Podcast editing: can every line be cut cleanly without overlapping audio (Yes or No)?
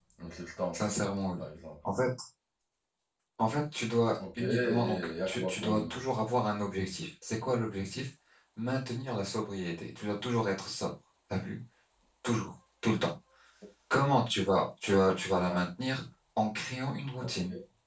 No